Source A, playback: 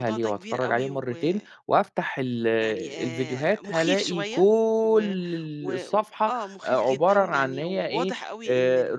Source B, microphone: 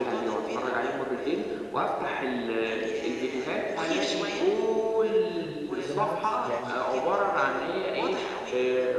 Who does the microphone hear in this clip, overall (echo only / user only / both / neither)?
both